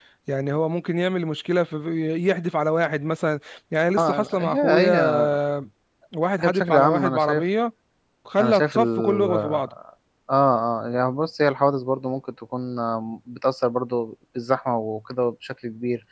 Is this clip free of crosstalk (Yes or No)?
No